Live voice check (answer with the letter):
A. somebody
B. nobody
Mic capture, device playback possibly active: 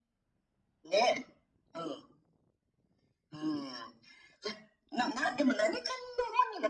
B